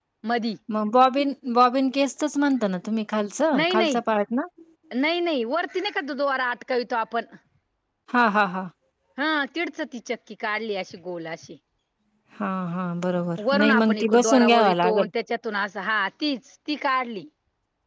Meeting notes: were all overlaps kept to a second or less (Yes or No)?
No